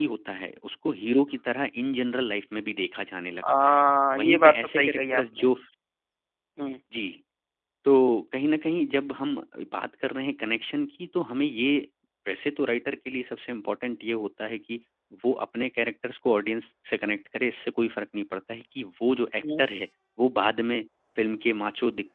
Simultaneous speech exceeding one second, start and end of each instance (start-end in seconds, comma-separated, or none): 4.2-5.5